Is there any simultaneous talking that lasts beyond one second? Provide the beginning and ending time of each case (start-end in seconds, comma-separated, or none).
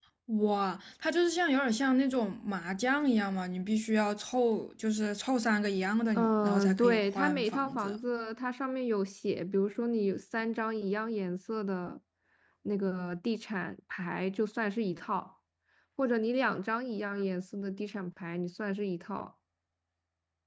6.2-8.0